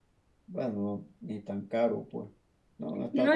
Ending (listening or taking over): taking over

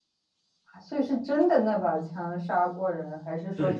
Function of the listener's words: taking over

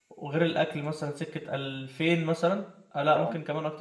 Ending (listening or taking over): listening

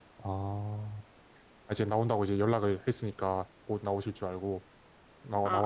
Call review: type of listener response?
taking over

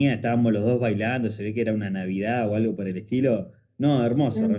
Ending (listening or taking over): taking over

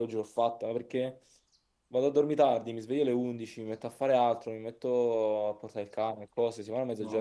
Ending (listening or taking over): taking over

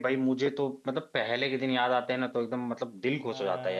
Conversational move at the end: taking over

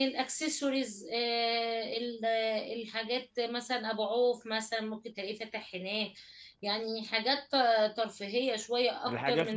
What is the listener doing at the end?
taking over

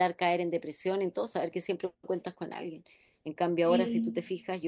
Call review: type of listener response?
listening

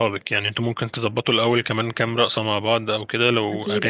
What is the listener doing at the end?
listening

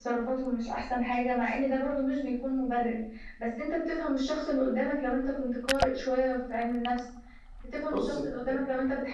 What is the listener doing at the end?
listening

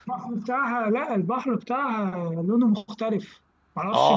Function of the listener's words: taking over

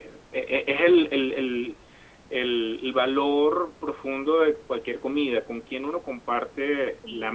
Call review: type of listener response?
taking over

